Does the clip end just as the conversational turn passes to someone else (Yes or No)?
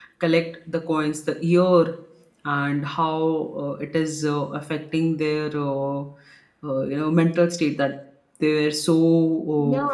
Yes